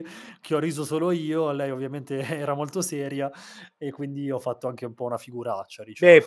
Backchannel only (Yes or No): No